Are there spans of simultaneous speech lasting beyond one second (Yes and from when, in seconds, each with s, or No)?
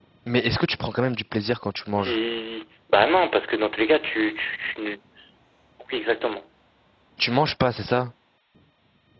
No